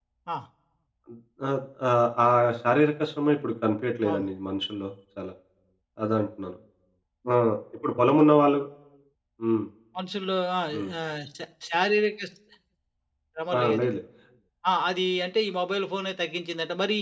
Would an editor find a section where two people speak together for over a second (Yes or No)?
No